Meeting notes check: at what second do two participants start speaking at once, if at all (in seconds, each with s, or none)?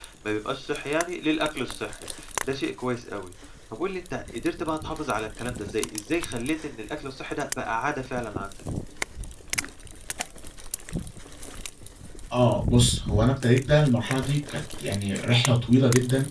none